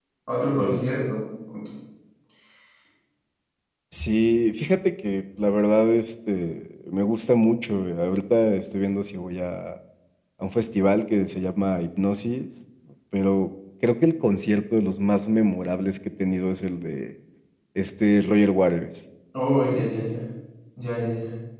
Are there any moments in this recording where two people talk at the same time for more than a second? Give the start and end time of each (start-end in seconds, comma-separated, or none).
none